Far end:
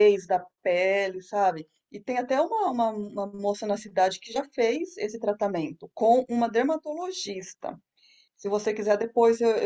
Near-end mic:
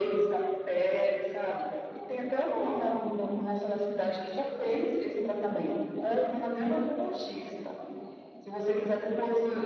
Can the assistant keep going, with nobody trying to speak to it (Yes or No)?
Yes